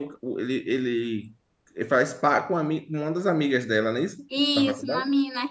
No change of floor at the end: No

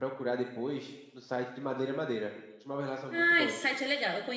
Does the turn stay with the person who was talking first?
No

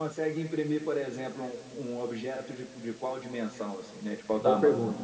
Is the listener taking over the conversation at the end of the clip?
Yes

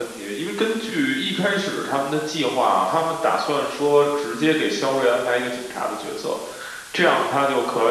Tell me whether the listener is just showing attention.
Yes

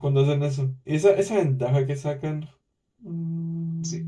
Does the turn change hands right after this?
Yes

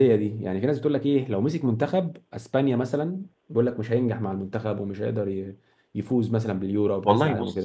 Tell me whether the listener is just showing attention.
No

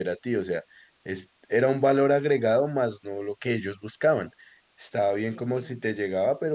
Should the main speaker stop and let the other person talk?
No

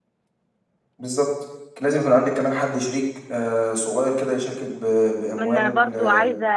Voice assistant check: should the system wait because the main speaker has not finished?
No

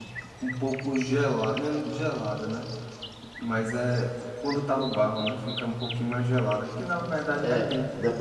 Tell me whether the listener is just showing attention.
No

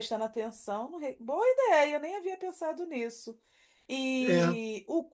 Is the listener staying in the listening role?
Yes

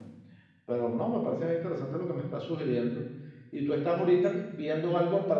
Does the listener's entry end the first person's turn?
No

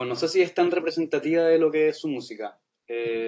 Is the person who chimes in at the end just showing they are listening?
Yes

